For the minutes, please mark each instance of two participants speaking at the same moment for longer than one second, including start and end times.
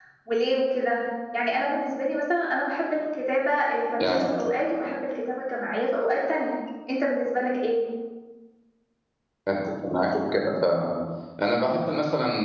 none

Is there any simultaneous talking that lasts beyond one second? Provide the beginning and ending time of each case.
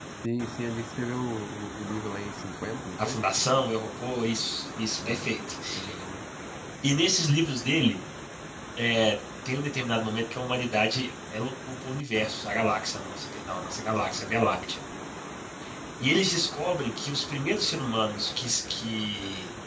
none

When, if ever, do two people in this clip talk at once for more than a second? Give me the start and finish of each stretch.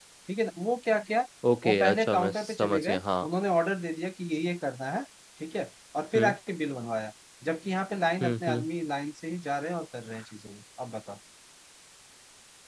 1.6-3.3

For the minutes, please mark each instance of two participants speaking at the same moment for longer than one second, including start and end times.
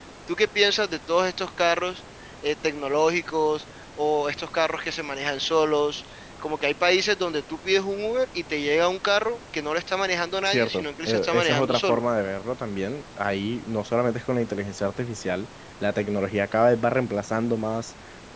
10.4-12.0

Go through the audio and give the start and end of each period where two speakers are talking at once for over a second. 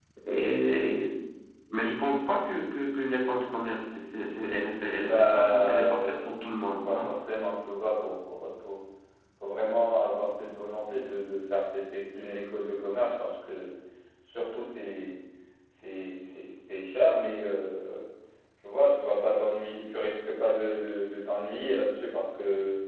5.0-6.3

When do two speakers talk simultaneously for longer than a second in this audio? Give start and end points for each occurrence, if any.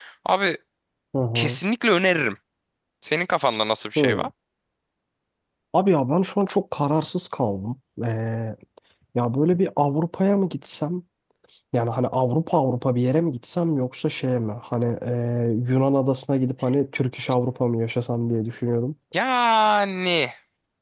none

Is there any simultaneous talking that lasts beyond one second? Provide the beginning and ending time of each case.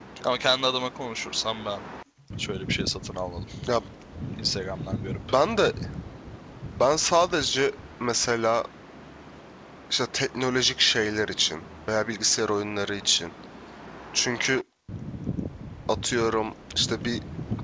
none

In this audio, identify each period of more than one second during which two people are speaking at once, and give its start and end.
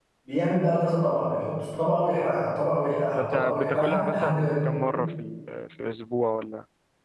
3.2-4.7

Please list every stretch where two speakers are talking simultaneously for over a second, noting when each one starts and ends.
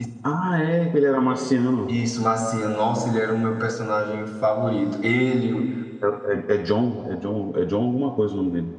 none

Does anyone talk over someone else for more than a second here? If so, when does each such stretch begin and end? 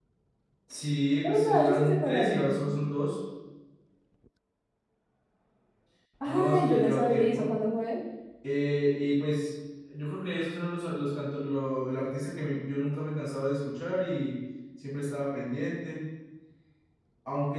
1.2-2.6, 6.3-7.5

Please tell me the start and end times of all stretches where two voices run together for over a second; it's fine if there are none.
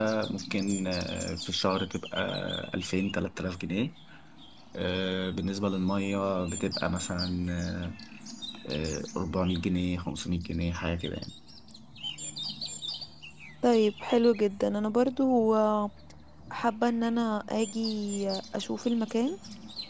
none

